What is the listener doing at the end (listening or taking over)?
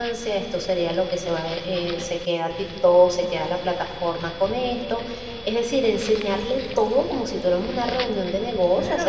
taking over